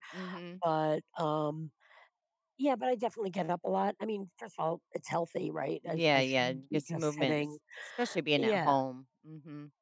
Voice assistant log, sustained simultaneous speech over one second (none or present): present